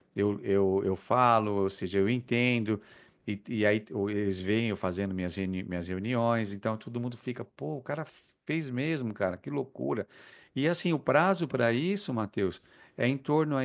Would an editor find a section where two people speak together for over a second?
No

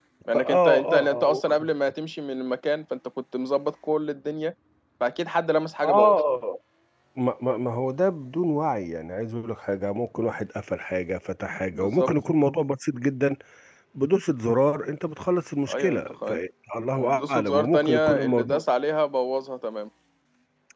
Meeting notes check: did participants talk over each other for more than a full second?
Yes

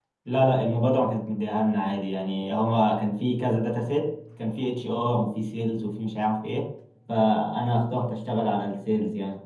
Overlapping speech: No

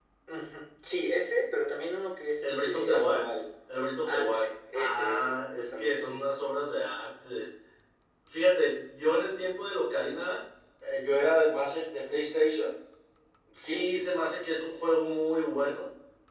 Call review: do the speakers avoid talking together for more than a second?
No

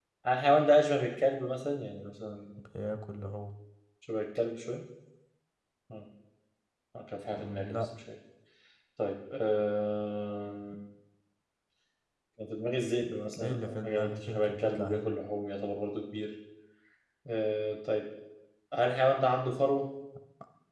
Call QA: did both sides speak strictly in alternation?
No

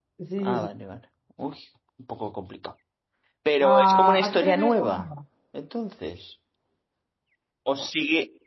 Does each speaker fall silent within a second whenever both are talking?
No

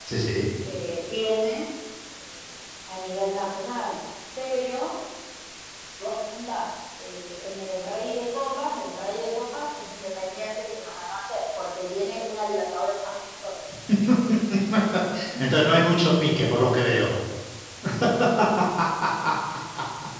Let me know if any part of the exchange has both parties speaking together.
No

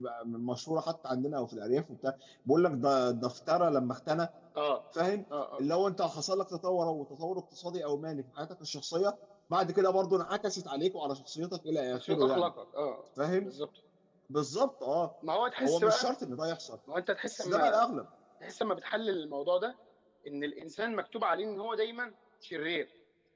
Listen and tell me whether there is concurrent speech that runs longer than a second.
No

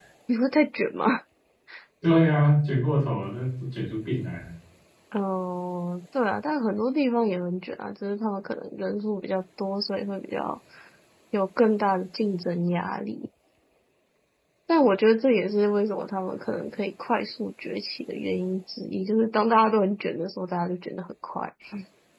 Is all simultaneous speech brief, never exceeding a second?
Yes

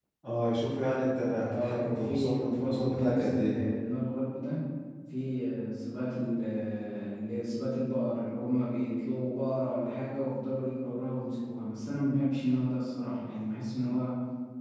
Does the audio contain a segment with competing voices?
Yes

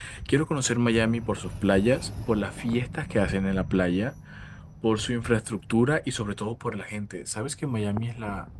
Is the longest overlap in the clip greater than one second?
No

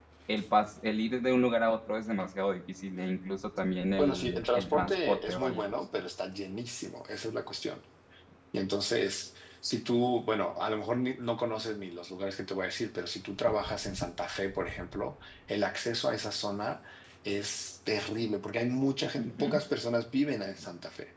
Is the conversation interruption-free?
No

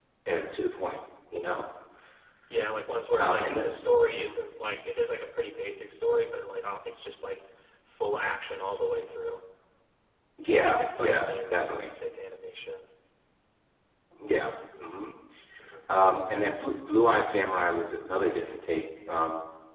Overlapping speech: Yes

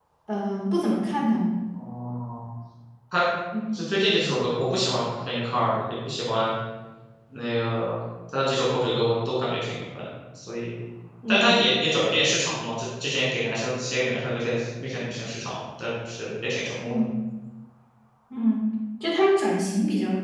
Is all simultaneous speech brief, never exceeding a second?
Yes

